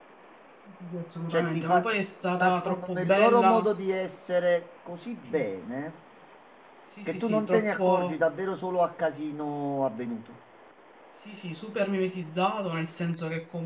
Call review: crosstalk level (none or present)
present